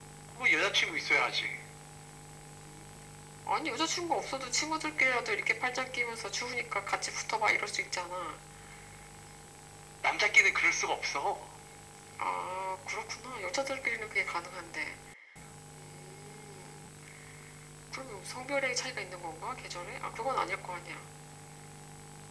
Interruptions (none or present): none